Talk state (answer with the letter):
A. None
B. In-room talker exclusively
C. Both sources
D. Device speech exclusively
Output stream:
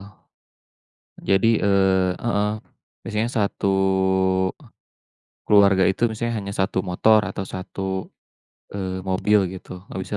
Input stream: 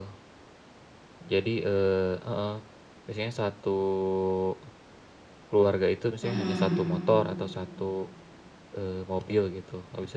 C